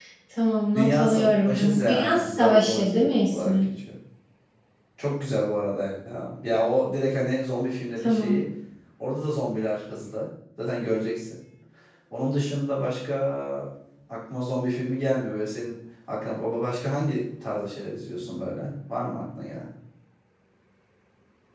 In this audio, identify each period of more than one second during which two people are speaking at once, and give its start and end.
0.7-3.7

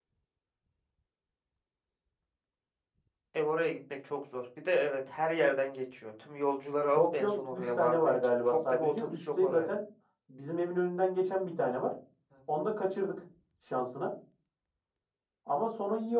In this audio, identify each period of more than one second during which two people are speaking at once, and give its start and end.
6.9-9.7

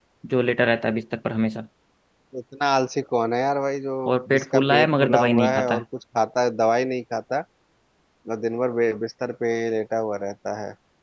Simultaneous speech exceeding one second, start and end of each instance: 4.3-5.8

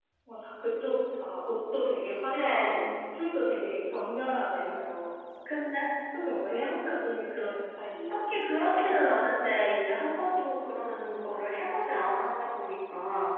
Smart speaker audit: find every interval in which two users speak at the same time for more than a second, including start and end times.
none

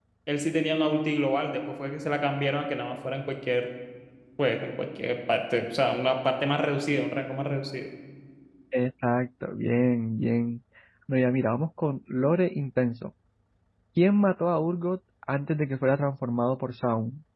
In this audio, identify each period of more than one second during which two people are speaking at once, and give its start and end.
none

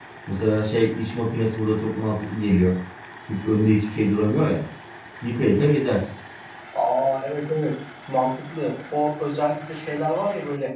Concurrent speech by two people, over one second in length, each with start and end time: none

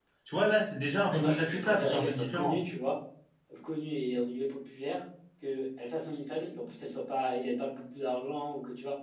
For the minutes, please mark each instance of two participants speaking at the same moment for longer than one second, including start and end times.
1.1-2.6

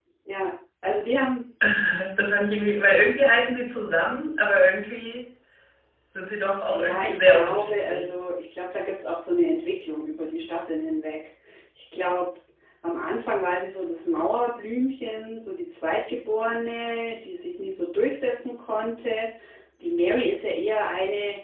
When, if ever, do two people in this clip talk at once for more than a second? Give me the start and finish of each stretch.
6.7-8.1

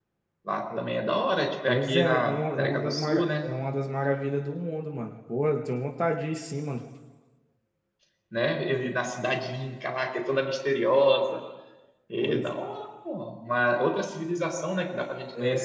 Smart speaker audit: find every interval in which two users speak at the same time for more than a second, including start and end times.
1.7-3.5

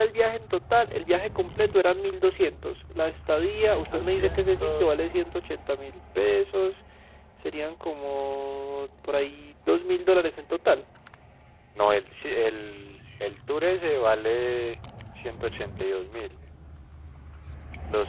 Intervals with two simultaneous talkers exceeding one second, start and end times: 3.7-4.9

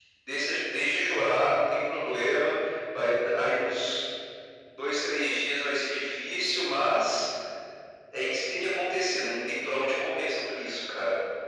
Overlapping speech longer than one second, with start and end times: none

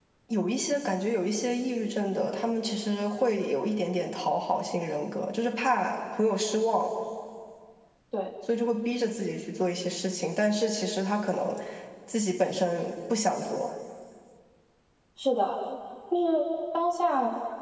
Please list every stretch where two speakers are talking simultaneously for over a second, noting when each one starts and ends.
none

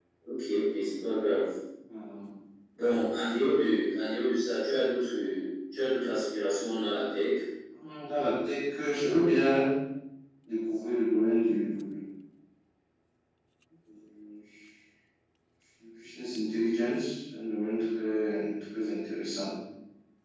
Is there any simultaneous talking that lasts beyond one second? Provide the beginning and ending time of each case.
none

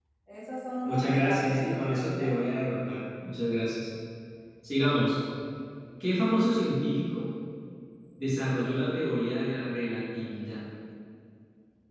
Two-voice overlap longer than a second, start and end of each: 0.8-2.3

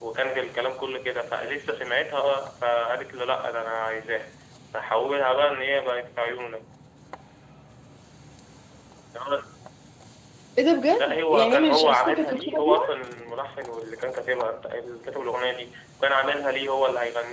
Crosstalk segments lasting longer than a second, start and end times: 11.0-12.9

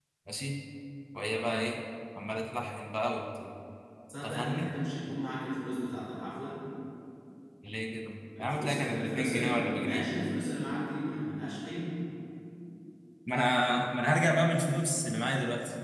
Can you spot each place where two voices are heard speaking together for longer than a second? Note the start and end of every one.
8.4-10.1

